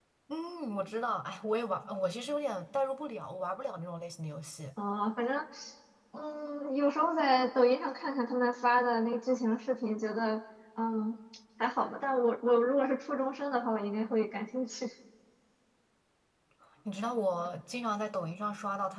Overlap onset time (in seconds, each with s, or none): none